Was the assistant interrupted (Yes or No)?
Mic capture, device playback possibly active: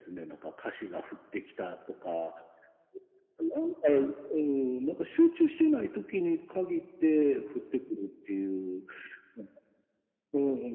No